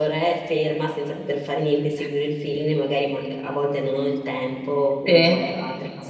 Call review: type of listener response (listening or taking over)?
listening